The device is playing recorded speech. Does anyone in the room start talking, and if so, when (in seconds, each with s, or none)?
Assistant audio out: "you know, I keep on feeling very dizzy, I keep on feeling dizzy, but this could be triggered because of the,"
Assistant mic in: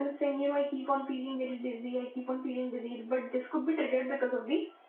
none